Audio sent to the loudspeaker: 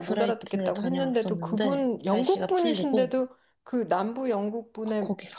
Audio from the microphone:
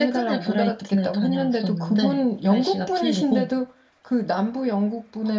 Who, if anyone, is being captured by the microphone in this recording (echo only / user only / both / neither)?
echo only